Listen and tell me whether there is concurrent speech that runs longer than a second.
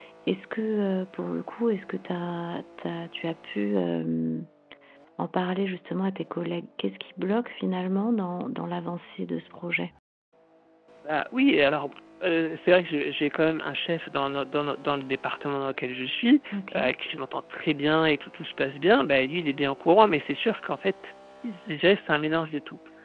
No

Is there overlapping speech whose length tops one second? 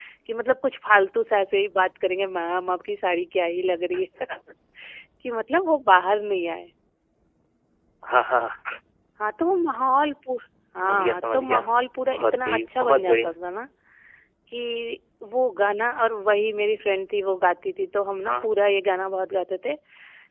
Yes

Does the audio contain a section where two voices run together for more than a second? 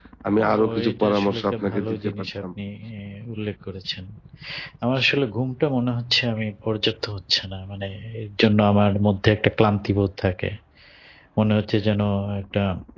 Yes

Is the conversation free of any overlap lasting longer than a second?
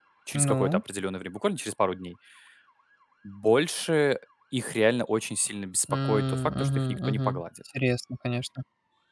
No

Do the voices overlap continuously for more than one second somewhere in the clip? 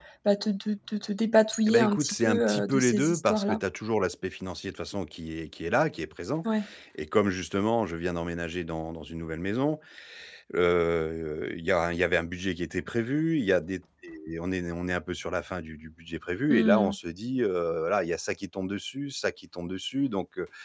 Yes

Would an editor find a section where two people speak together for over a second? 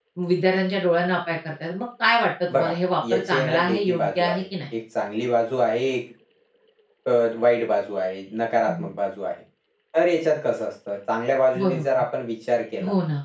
Yes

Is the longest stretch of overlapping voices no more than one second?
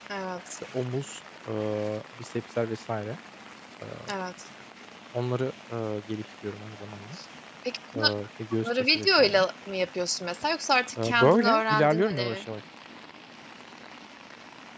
No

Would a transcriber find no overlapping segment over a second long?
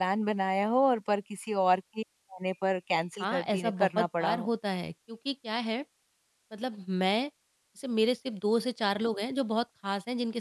No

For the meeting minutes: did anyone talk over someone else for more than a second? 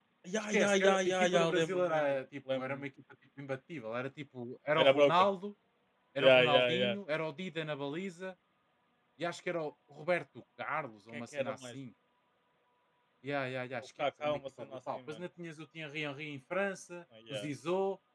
Yes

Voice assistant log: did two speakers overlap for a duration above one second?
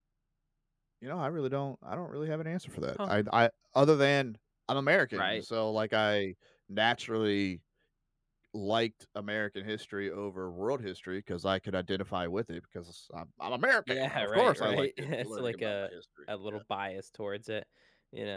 Yes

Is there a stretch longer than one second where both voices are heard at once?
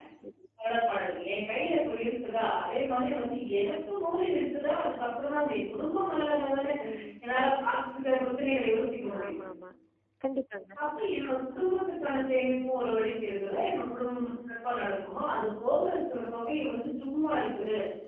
No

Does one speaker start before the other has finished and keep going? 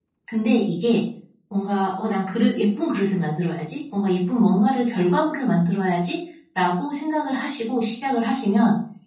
No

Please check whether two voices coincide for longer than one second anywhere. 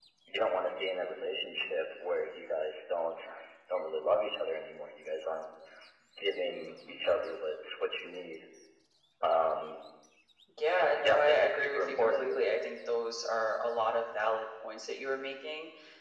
Yes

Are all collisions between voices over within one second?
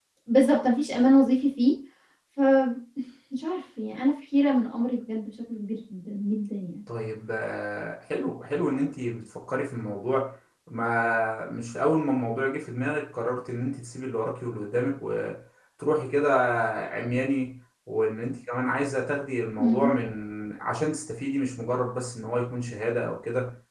Yes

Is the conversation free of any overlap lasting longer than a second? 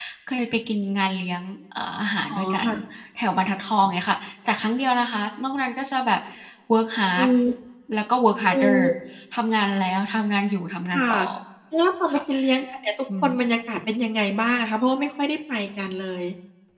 Yes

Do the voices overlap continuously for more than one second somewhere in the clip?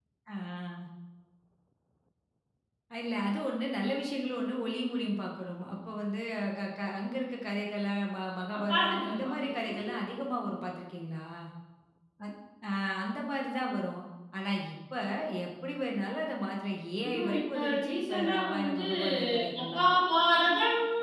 Yes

